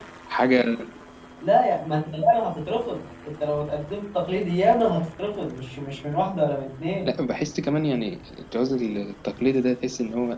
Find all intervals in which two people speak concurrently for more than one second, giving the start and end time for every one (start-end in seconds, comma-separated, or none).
none